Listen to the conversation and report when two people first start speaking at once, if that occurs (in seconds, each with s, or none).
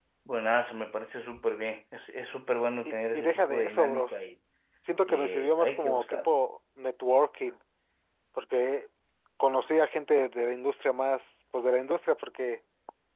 2.8 s